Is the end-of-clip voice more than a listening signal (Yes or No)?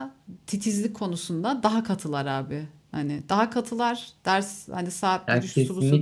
No